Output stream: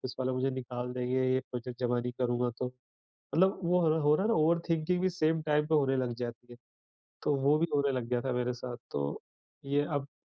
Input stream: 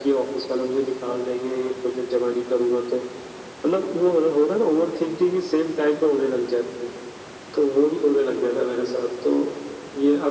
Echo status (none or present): present